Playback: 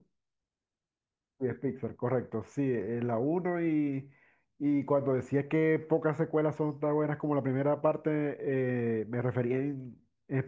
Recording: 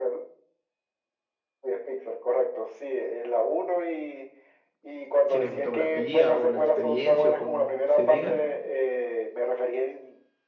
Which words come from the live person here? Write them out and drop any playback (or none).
cinematografía o la experiencia o como se diga